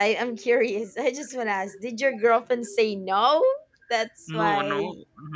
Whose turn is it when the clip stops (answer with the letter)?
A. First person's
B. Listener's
B